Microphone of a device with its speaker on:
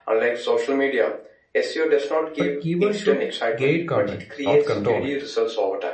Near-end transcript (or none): But keywords should guide content, not control it.